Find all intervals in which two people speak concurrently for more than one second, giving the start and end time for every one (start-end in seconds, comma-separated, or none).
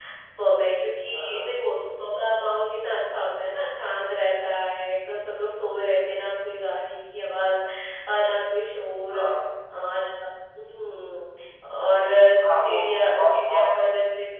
12.6-13.9